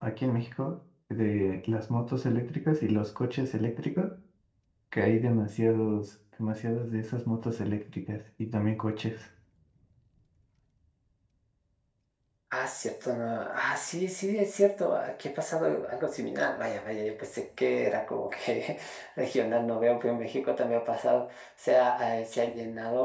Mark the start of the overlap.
none

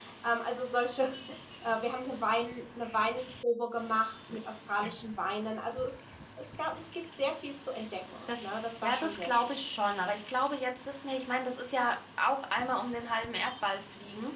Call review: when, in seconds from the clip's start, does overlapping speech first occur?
8.3 s

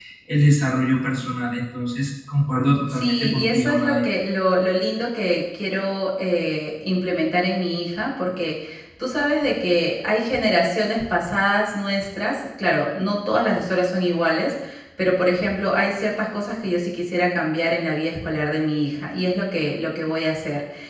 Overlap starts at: 2.6 s

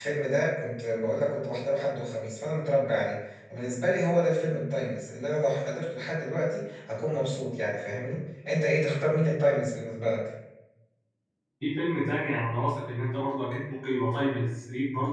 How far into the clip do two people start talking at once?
none

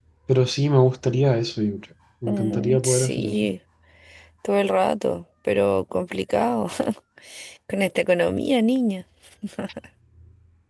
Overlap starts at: 2.3 s

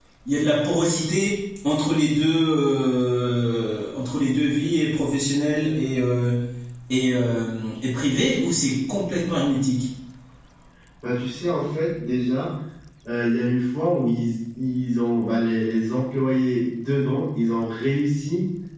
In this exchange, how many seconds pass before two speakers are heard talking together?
none

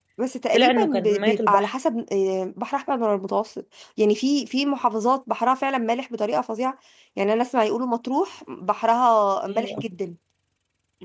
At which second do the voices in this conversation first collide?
0.5 s

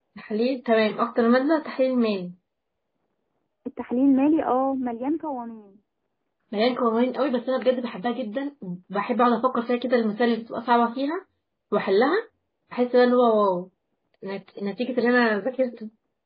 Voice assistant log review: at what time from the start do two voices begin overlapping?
none

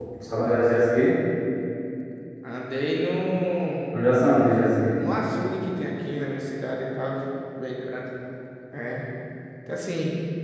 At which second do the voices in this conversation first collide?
none

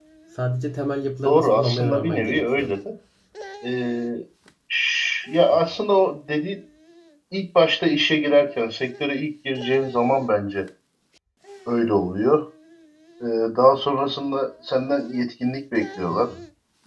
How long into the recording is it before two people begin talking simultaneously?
1.2 s

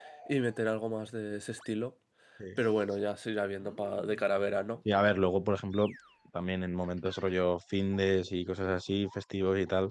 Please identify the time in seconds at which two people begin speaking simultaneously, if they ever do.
none

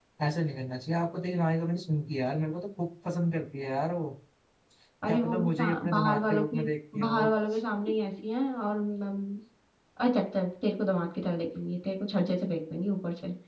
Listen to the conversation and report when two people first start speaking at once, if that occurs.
5.1 s

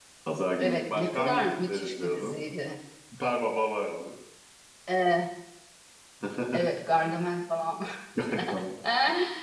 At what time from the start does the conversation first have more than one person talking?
0.6 s

